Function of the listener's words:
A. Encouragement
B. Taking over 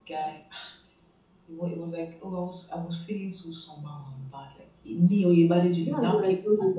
B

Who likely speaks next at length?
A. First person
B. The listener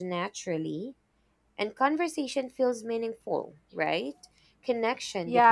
B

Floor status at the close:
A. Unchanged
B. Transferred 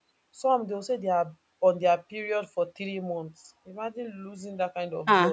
B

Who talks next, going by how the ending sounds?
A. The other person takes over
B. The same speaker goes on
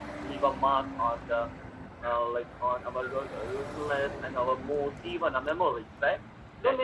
B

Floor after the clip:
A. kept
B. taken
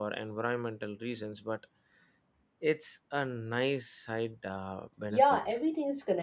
B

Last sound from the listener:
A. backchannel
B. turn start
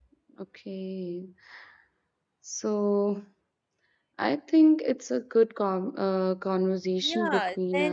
B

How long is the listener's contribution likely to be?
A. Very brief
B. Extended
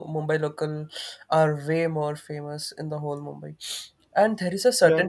A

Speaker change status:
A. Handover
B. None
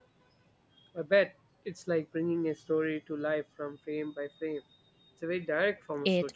A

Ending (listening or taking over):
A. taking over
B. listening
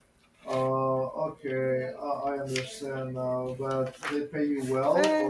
A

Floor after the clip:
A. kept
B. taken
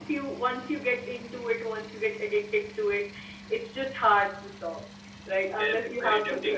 B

